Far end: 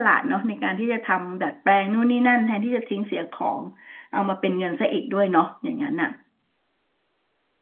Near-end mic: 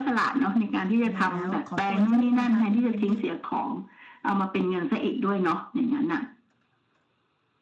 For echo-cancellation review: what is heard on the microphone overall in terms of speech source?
both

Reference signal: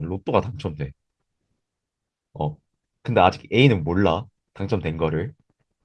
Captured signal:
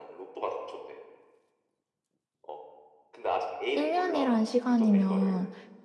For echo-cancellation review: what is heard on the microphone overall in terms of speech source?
both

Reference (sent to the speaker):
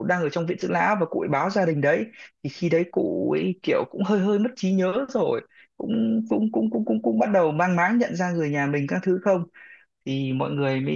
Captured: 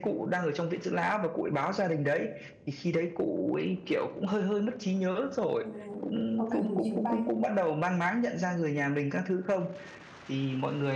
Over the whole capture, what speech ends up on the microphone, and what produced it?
both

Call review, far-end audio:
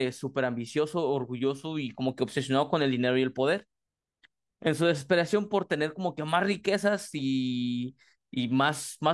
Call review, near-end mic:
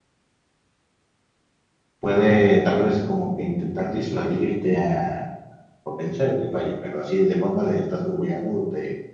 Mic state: user only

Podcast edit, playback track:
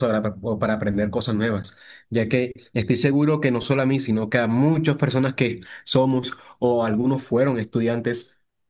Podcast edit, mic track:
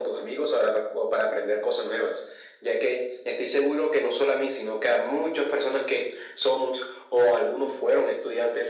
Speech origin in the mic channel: echo only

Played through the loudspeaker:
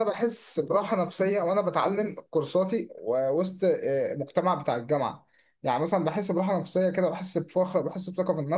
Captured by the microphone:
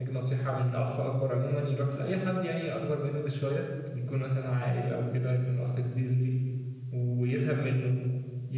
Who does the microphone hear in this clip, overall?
user only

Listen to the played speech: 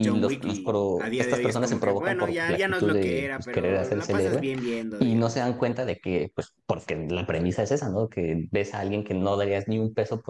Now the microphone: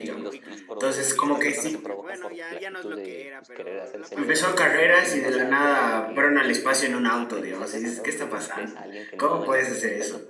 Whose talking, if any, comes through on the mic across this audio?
both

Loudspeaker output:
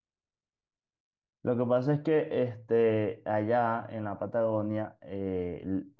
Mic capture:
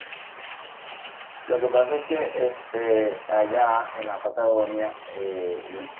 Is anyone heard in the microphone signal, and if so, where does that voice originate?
echo only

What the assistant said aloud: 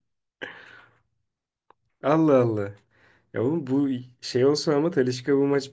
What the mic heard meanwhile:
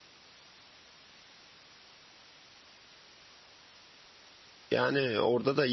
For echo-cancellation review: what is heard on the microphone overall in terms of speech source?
user only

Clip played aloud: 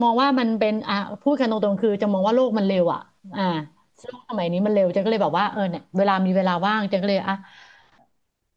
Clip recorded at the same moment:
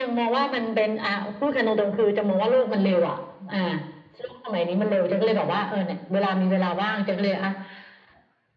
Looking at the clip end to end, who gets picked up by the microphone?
echo only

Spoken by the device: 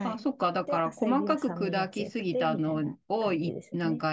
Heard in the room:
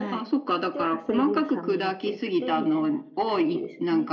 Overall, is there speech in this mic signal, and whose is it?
echo only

